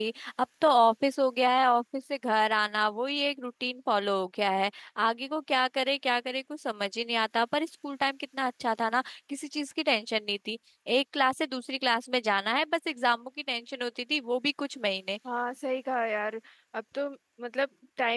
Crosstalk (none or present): none